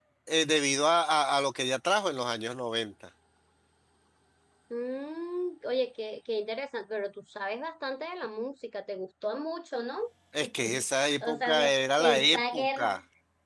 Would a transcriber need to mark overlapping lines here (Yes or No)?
Yes